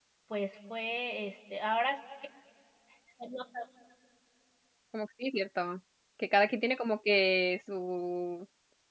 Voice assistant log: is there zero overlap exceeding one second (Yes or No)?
Yes